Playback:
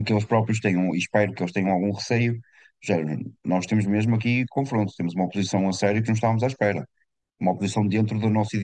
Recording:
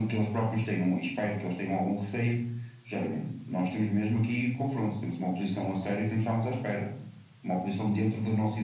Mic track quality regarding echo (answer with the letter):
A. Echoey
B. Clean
A